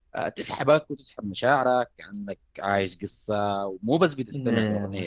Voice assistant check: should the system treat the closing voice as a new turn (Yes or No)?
No